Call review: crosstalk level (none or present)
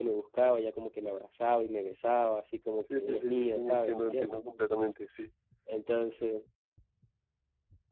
present